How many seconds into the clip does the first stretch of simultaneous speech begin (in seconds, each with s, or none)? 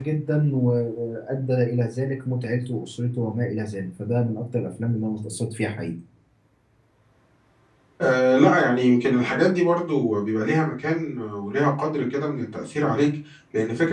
none